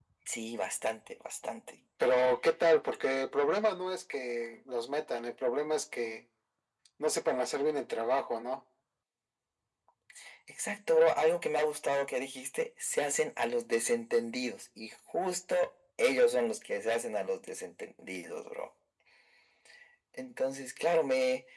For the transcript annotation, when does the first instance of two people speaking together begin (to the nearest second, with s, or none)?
none